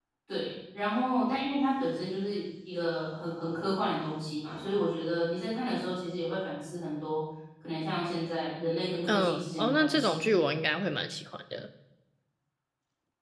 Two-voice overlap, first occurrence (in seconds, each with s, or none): 9.1 s